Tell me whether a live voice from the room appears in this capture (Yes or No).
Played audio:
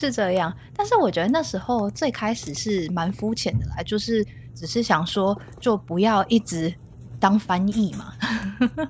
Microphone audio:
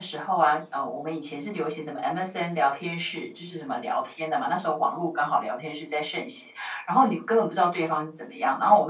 Yes